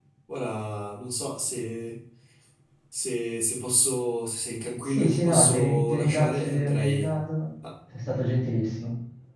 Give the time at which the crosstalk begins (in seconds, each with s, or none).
4.9 s